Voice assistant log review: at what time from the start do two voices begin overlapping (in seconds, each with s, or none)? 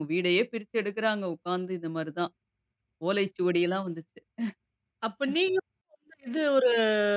none